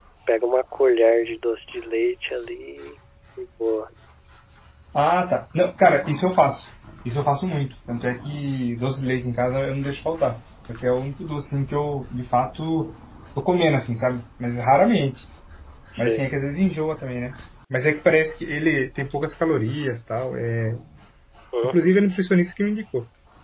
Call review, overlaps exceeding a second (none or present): none